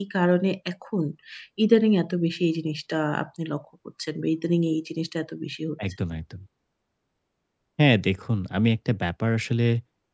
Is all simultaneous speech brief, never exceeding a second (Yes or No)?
Yes